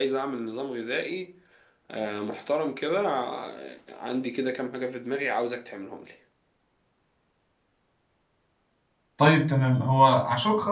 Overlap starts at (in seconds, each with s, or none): none